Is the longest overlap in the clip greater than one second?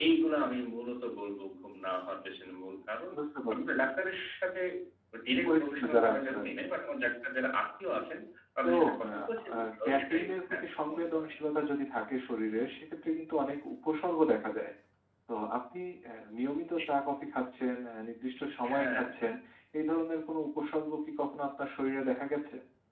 Yes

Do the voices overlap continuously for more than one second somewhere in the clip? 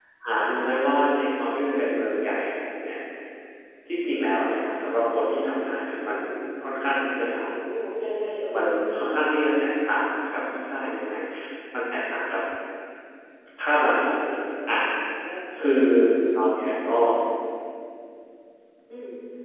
No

